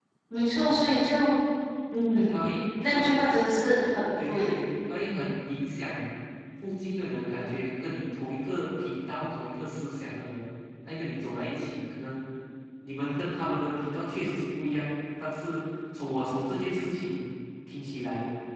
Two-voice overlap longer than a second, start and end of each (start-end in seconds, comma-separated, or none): none